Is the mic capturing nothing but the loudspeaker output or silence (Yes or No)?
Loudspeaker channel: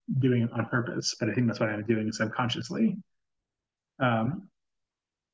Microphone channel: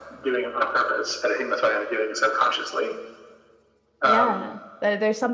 No